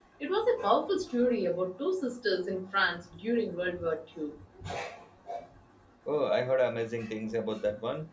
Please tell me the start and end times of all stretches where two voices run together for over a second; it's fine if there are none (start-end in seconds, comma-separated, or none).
none